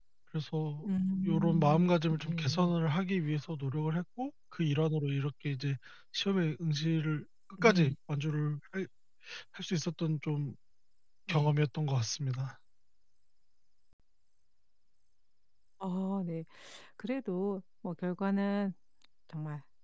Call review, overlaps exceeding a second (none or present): present